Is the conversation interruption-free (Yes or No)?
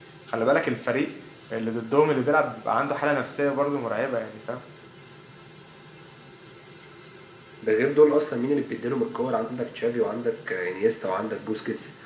Yes